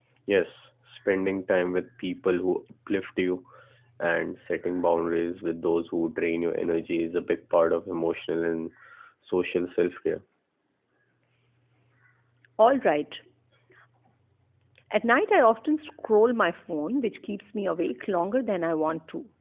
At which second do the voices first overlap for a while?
none

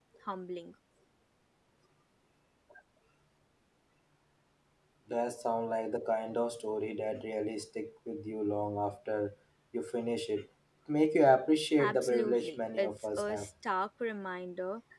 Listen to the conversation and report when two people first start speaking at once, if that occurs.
11.8 s

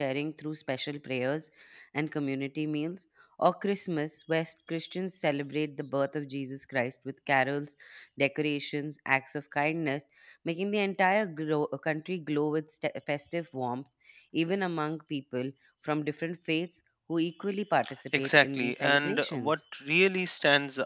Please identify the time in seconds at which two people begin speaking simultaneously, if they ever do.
18.1 s

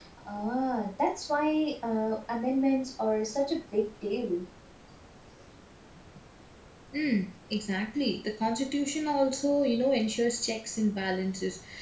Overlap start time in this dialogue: none

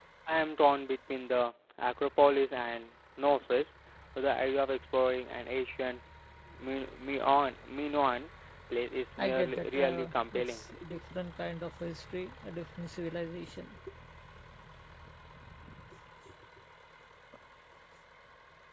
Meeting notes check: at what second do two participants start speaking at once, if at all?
9.2 s

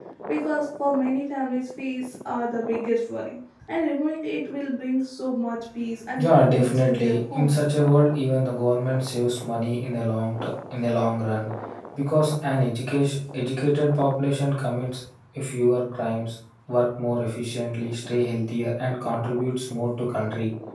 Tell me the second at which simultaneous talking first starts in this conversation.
6.2 s

